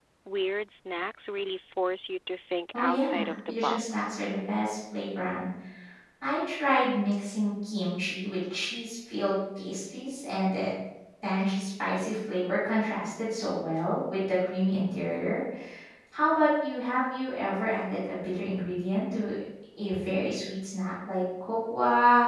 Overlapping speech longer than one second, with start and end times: 2.7-4.1

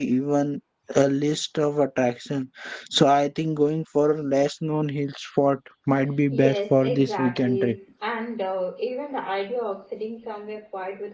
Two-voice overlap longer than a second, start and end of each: 6.3-7.8

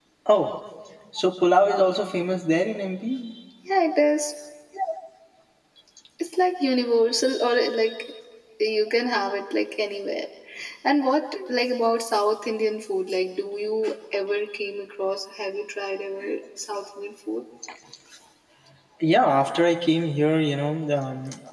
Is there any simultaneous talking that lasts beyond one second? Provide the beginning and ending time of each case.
none

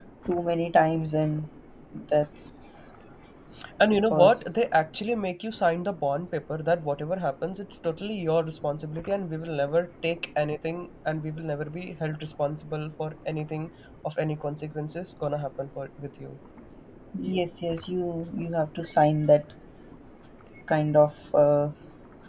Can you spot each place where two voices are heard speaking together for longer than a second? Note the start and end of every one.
none

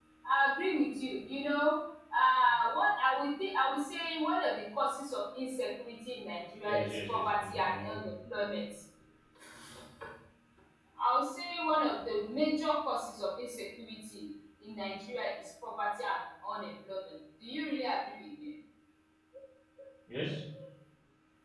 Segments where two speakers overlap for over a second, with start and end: 6.6-8.1

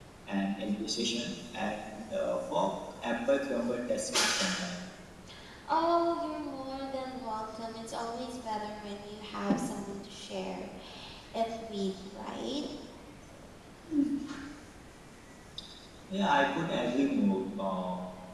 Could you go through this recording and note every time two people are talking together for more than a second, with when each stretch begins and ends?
none

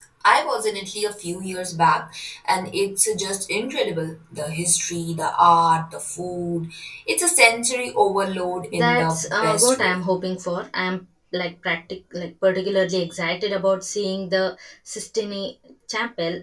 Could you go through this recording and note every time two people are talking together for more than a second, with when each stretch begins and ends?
8.7-9.9

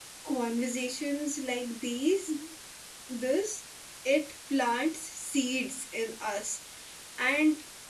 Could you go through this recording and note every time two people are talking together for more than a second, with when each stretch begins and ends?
none

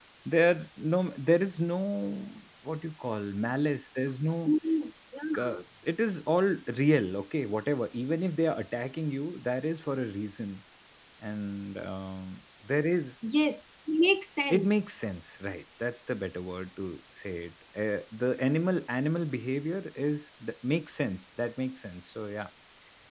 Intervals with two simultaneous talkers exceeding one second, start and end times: none

